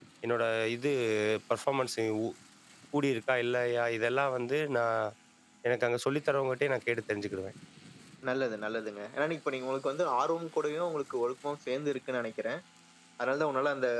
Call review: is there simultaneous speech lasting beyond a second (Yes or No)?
No